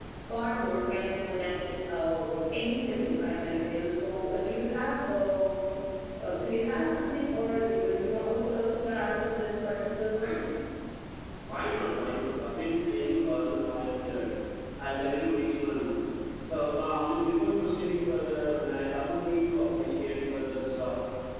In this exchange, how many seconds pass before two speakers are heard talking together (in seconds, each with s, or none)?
none